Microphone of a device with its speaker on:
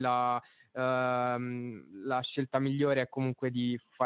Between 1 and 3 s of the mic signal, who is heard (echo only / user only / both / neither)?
user only